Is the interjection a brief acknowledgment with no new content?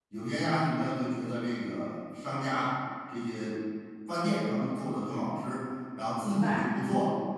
Yes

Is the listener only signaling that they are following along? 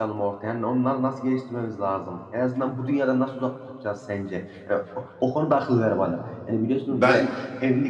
Yes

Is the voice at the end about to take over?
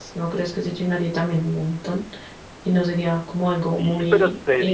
Yes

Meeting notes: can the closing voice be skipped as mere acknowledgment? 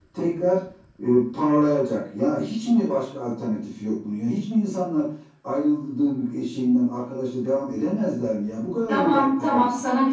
No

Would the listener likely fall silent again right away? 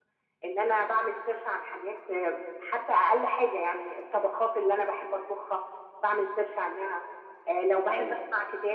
Yes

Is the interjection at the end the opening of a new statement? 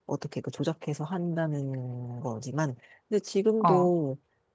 No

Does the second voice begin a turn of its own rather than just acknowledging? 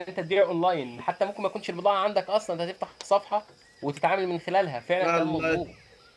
Yes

